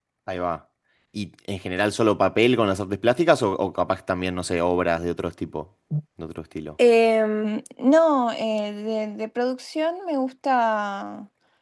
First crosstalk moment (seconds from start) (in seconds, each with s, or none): none